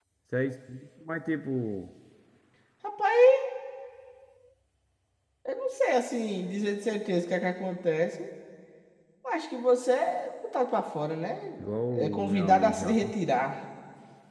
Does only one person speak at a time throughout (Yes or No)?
No